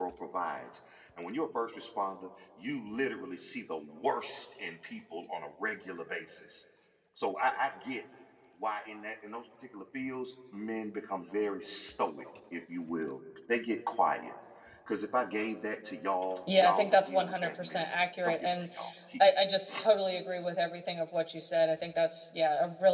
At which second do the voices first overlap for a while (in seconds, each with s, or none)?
16.5 s